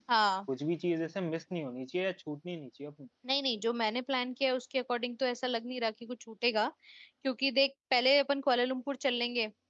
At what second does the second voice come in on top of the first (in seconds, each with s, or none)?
none